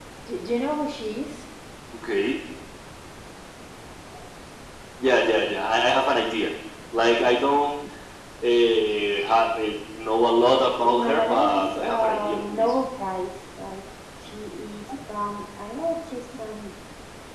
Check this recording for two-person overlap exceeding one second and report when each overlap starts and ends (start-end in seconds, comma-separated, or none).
10.6-12.7